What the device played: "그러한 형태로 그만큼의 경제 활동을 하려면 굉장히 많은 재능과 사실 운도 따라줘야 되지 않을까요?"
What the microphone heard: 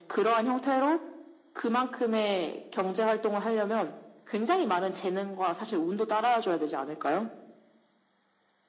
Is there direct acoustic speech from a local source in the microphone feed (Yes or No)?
No